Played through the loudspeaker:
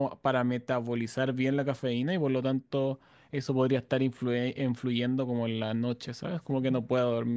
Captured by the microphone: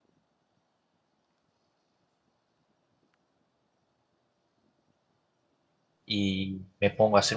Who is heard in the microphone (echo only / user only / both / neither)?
user only